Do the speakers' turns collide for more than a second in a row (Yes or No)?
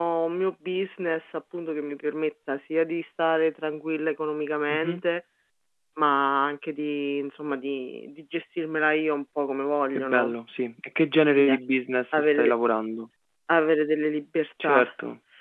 No